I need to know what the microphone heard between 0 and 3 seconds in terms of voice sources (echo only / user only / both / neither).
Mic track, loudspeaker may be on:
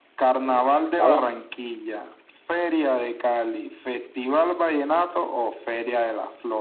both